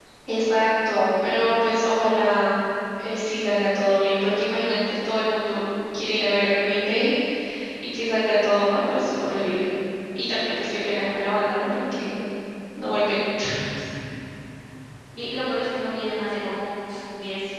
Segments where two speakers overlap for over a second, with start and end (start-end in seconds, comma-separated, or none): none